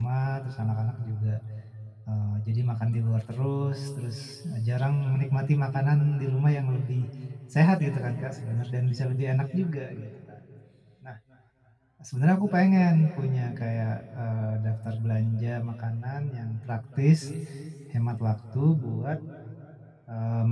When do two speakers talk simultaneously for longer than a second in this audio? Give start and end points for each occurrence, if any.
none

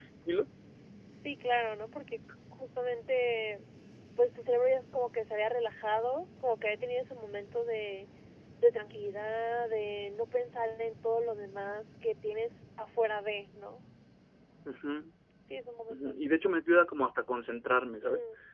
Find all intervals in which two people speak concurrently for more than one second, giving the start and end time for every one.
none

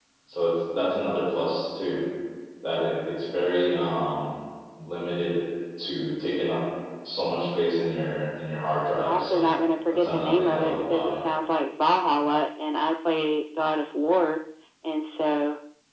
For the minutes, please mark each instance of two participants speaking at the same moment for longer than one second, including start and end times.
9.9-11.2

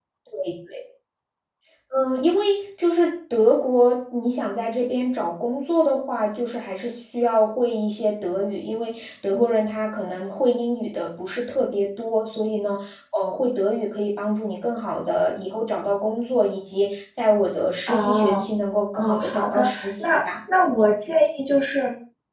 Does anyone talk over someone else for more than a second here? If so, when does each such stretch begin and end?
18.9-20.2

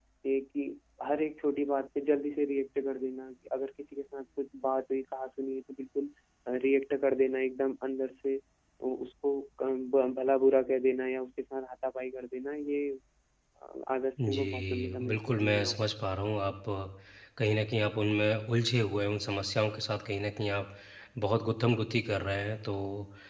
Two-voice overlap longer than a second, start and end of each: 14.3-15.7

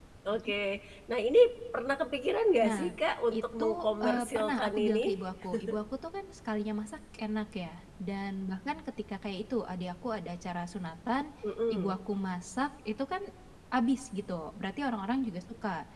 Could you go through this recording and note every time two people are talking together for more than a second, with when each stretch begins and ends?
3.3-5.1

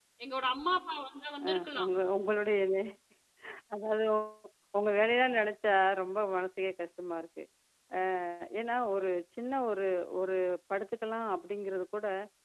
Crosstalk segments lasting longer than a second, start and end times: none

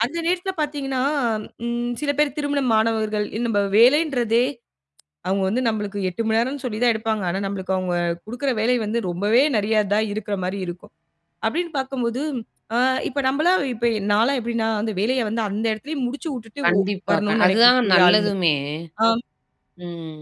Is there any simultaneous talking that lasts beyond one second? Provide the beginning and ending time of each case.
16.6-18.3

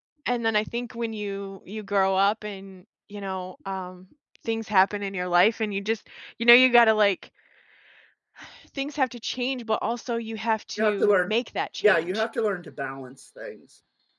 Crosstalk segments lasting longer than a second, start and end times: none

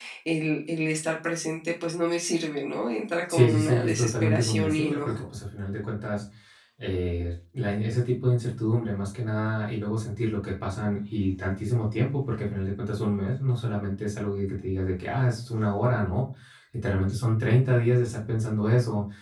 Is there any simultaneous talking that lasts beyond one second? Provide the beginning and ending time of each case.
3.3-5.2

